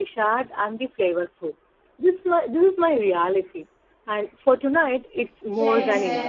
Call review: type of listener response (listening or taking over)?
taking over